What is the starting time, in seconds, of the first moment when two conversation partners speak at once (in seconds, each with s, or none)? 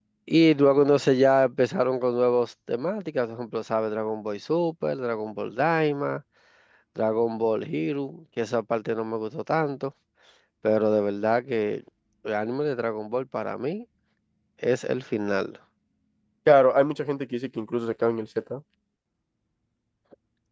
none